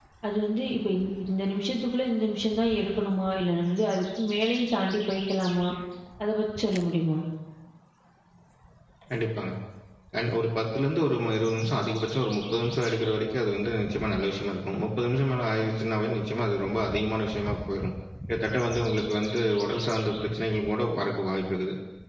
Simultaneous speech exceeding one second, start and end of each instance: none

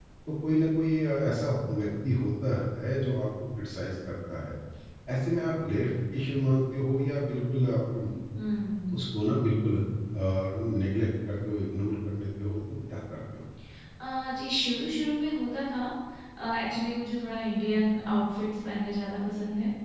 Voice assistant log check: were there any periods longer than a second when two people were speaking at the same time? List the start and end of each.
none

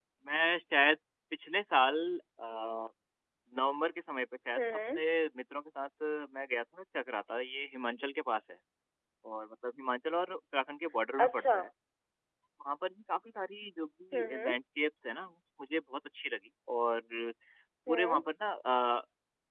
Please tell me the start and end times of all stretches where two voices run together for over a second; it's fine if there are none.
none

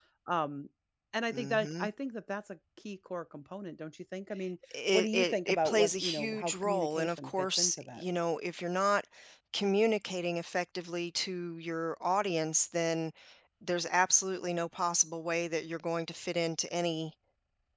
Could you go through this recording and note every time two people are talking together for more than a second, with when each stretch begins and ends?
4.9-8.0

